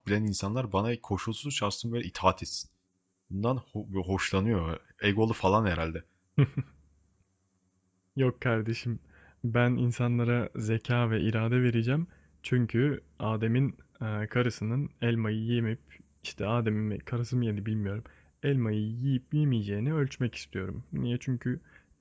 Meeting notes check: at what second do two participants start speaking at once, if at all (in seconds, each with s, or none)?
none